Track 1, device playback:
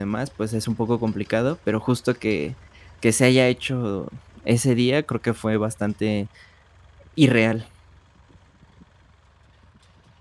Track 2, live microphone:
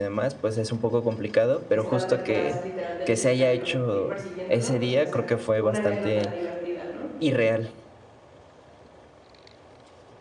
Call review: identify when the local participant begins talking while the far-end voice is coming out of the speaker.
1.7 s

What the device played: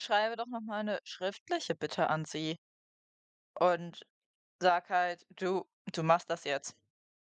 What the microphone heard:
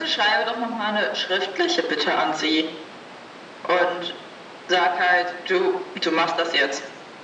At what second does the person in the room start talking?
none

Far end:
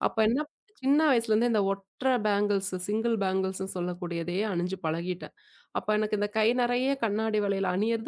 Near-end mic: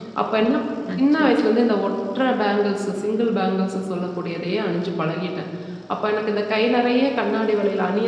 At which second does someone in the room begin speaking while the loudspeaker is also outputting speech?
0.9 s

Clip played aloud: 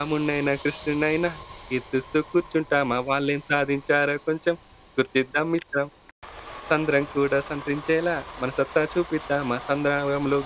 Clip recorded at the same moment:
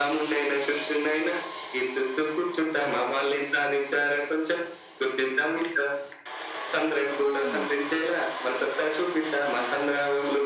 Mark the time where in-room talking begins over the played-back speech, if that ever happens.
7.2 s

